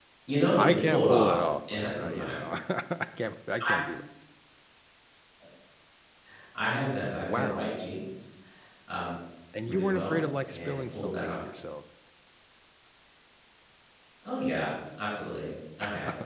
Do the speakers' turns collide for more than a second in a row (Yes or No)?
Yes